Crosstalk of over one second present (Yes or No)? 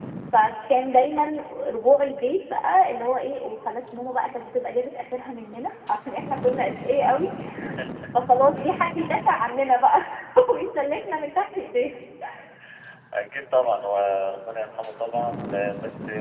No